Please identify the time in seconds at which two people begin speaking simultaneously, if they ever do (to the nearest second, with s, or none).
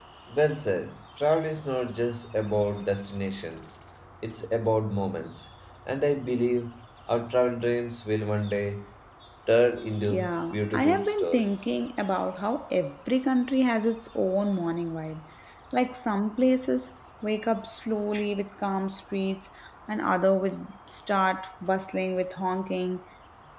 10 s